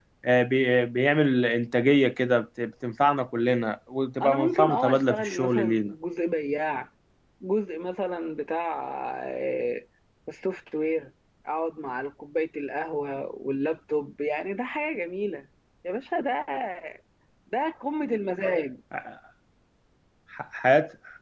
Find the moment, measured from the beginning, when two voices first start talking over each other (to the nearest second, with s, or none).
4 s